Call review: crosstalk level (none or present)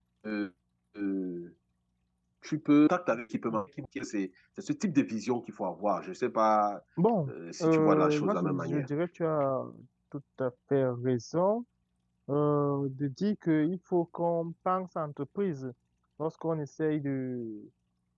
present